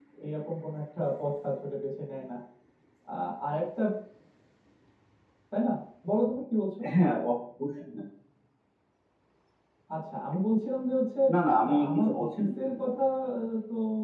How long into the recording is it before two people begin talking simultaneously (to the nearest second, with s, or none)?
12 s